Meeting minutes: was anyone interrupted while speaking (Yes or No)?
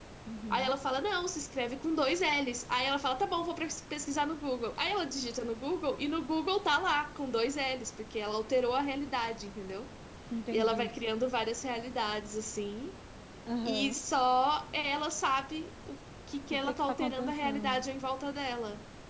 Yes